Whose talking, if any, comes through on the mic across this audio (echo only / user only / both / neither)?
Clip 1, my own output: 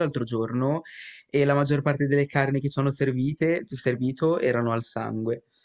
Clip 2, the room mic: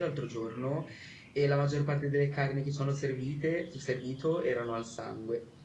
echo only